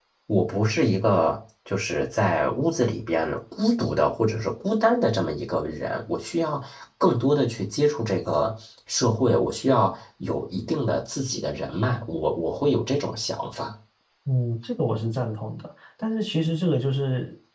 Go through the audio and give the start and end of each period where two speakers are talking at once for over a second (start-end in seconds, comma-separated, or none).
none